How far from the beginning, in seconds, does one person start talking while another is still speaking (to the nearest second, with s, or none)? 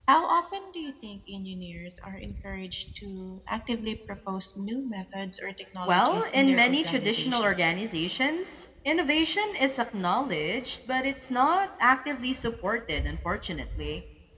6 s